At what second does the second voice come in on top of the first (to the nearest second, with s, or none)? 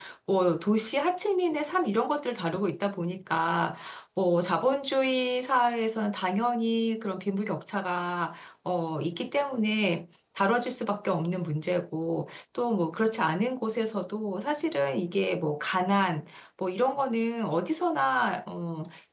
none